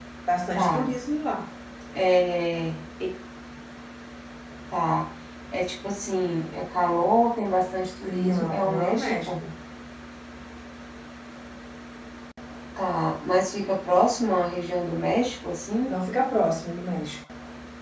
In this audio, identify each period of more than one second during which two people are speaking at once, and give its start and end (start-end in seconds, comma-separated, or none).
8.1-9.3